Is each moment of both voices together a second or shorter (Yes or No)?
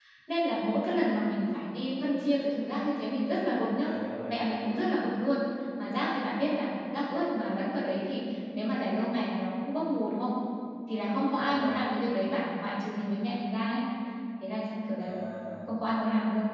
Yes